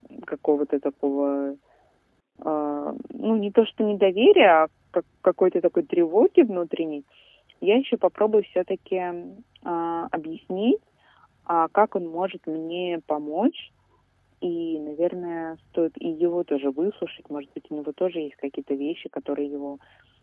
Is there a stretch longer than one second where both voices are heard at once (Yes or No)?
No